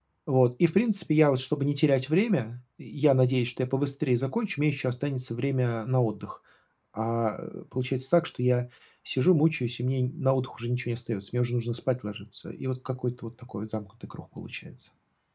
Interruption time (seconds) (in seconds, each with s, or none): none